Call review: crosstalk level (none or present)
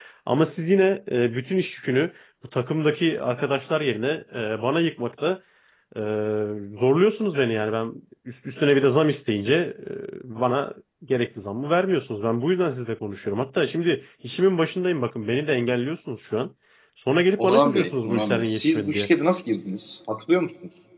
present